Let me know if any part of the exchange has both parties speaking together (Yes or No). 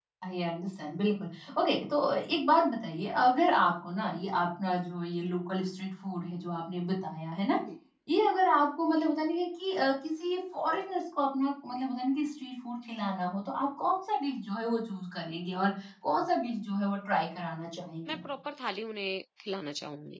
No